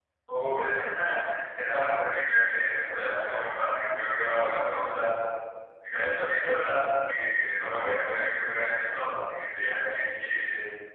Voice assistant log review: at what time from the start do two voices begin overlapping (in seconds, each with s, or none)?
none